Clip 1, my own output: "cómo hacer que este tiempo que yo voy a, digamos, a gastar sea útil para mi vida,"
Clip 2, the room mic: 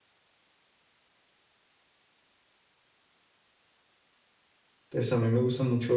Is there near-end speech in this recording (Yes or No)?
Yes